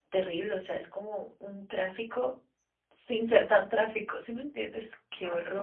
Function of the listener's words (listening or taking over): taking over